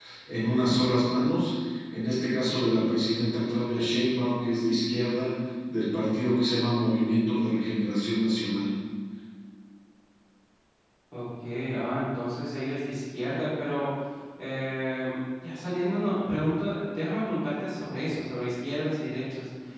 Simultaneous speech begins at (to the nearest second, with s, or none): none